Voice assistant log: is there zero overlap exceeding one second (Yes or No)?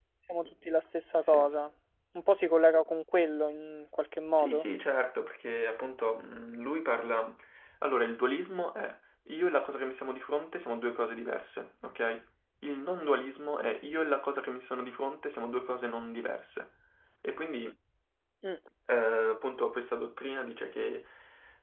Yes